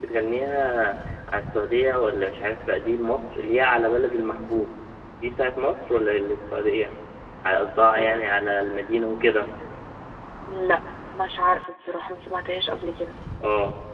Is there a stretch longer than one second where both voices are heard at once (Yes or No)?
No